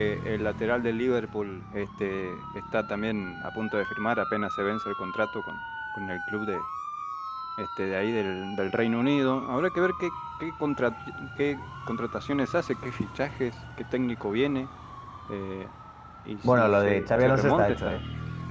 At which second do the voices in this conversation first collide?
16.4 s

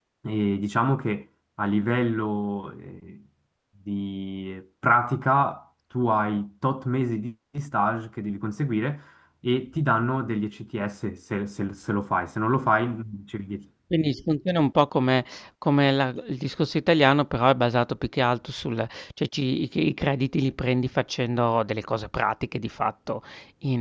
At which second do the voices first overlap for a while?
none

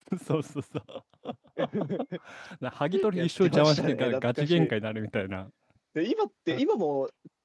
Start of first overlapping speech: 3.1 s

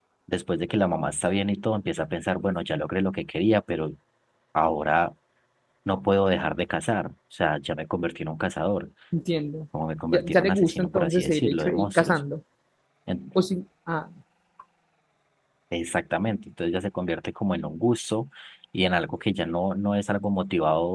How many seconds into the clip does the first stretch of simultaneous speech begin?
10.1 s

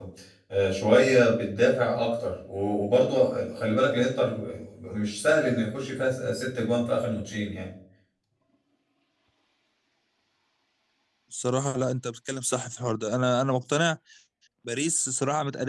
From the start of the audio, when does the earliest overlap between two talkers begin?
none

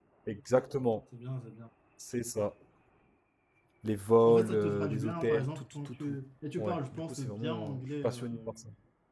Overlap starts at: 4.2 s

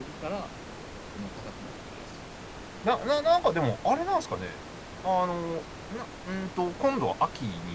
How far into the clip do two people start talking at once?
none

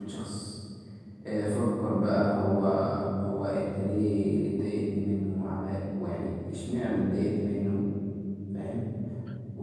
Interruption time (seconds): none

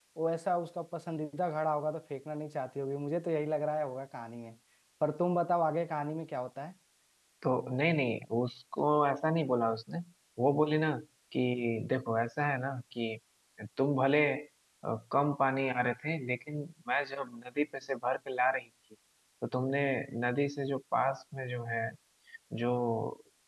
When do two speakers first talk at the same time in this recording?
none

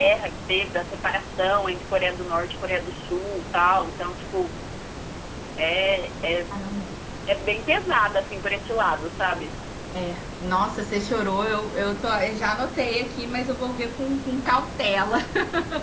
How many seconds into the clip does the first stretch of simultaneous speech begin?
none

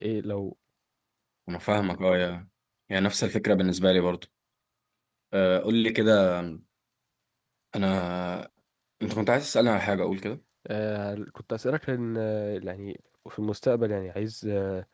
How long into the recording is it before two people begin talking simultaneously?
none

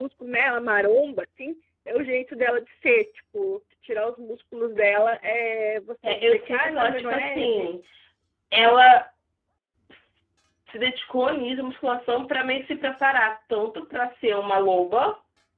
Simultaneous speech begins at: 6.0 s

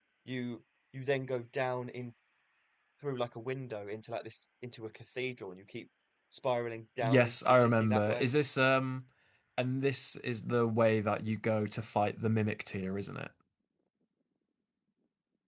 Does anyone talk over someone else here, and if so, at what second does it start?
7.0 s

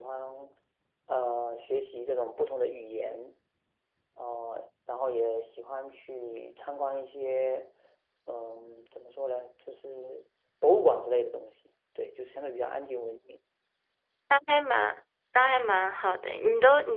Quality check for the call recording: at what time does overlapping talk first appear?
none

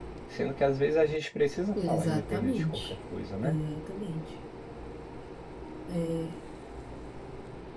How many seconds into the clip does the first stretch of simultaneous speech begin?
1.8 s

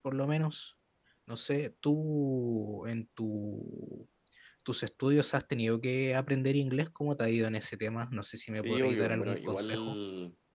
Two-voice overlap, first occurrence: 8.6 s

